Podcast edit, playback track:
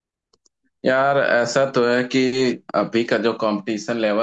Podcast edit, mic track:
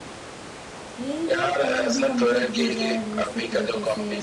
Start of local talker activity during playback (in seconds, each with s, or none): 1.0 s